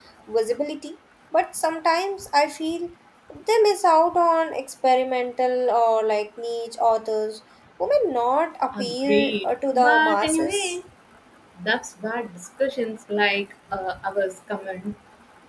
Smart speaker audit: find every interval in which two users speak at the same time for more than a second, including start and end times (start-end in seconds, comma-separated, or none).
8.8-10.8